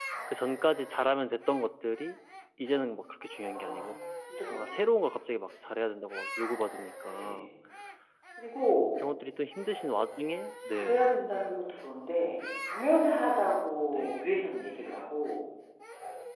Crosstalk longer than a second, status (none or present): none